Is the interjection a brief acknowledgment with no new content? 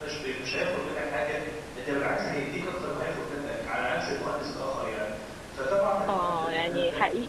No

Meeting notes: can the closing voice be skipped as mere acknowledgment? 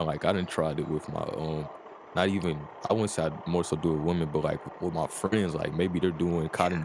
Yes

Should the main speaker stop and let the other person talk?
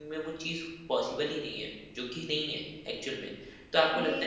No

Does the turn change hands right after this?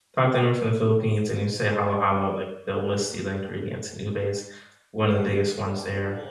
Yes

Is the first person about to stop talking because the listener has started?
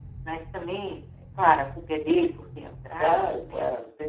Yes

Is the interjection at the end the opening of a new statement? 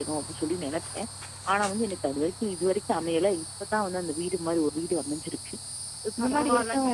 Yes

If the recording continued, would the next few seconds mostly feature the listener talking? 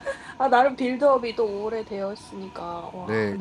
Yes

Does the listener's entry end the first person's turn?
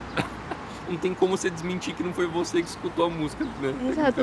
Yes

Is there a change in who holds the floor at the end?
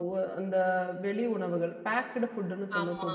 No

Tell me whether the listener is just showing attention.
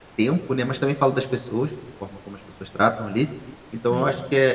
Yes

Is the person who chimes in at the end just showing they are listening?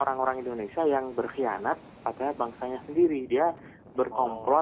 Yes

